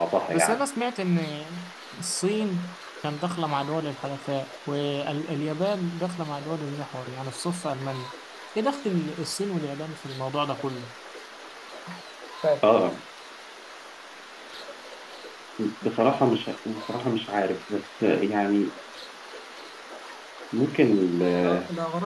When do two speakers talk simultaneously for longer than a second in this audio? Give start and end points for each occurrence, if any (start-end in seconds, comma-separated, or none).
none